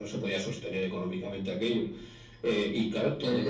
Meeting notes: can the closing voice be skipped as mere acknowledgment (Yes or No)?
No